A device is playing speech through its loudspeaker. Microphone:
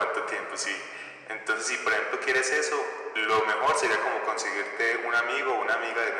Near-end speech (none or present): none